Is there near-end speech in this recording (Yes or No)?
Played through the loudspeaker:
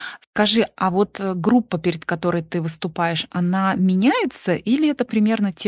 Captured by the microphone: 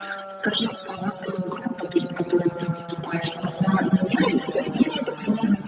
No